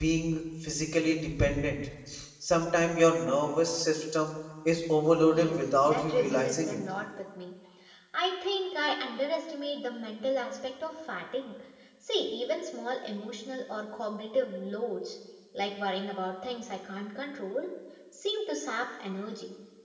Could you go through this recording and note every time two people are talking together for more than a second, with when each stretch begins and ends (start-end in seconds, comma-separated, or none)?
5.3-6.8